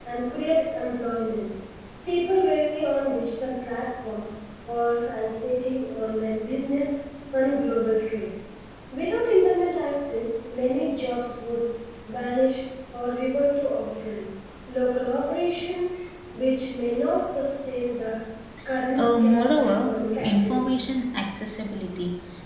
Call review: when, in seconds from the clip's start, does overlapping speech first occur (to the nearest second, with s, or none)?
19 s